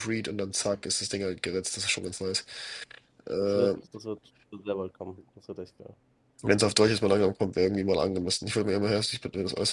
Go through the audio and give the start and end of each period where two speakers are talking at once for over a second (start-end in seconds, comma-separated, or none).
none